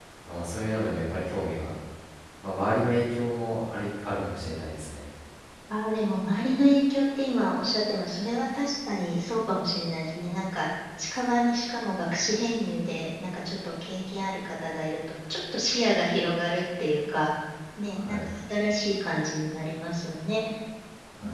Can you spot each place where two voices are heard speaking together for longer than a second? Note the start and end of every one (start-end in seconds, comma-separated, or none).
none